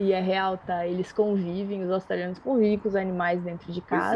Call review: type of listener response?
listening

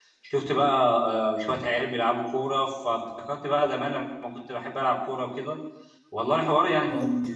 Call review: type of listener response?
listening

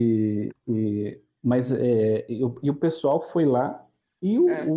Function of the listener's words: listening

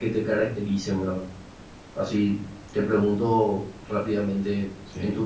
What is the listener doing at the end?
listening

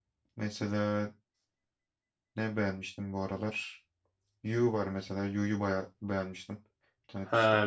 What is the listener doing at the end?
taking over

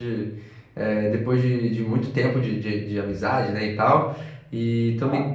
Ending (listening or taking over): listening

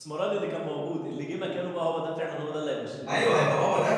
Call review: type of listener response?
taking over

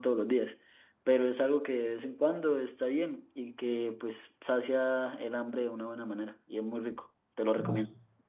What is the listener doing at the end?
taking over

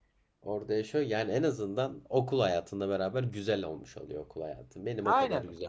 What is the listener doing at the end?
taking over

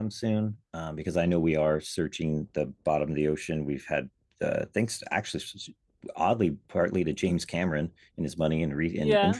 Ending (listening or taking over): taking over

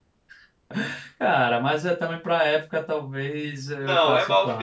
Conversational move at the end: taking over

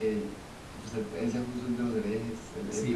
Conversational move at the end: taking over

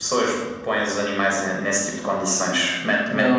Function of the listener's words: listening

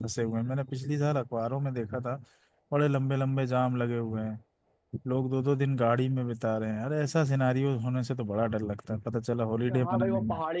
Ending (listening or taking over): taking over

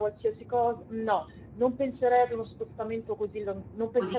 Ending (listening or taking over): listening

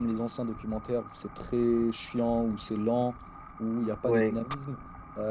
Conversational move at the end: listening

